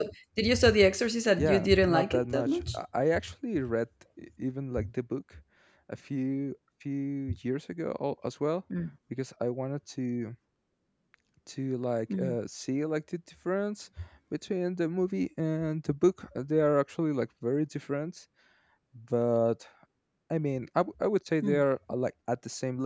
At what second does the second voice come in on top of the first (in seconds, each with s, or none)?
1.4 s